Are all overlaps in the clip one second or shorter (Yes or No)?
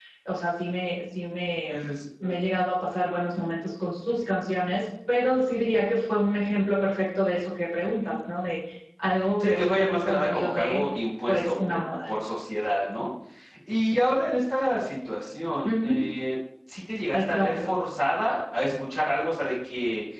No